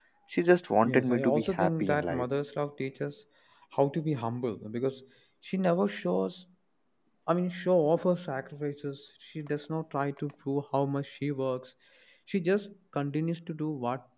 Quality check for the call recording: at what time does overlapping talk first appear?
0.8 s

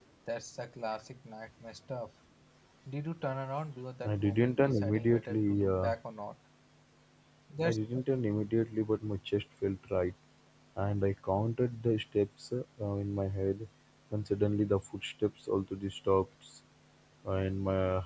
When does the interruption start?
4.0 s

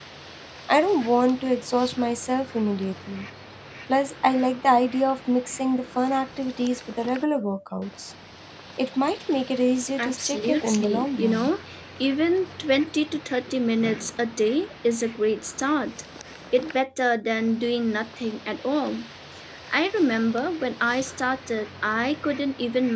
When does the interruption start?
10.0 s

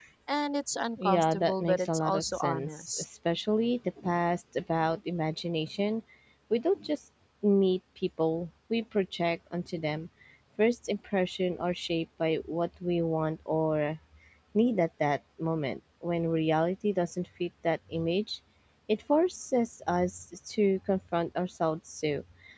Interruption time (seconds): 1.0 s

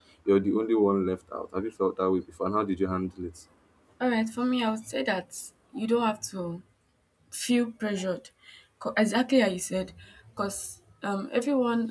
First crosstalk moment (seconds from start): none

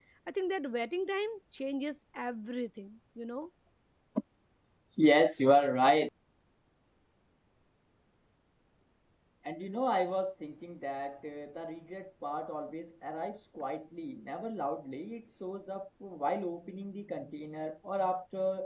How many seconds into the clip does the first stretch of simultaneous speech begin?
none

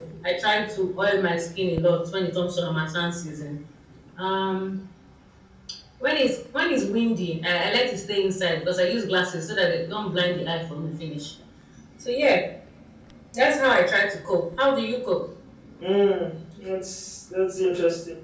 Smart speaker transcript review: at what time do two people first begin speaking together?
none

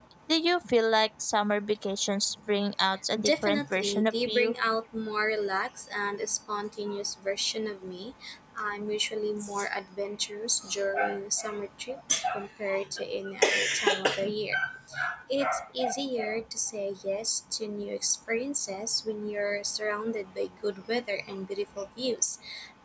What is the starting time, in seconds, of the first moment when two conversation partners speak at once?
3.2 s

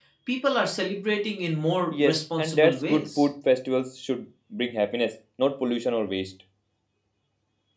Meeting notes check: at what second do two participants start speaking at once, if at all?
1.9 s

